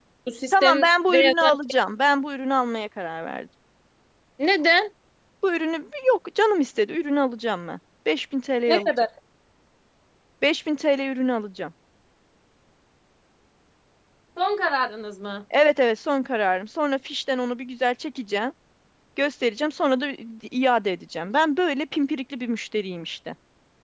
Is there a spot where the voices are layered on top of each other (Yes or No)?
Yes